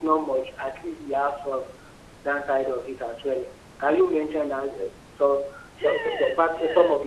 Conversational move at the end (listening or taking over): taking over